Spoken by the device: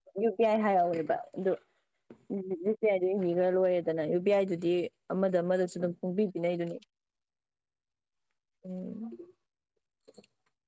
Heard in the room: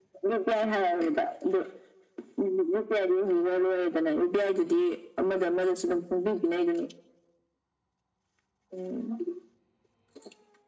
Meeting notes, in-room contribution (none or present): none